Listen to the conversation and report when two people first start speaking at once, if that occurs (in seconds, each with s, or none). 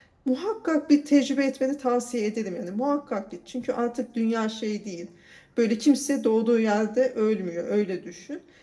none